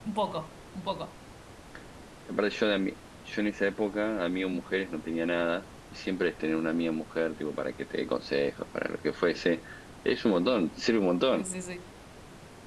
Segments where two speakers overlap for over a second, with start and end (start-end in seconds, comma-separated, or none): none